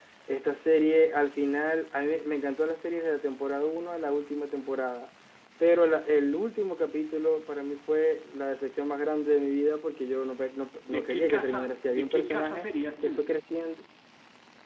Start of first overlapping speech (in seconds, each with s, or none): 10.8 s